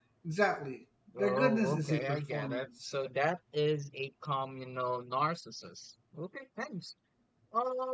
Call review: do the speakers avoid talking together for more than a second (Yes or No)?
No